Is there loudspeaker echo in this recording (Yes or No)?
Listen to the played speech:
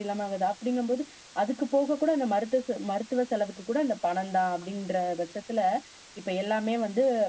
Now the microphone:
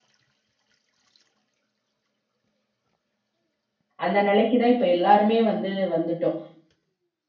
No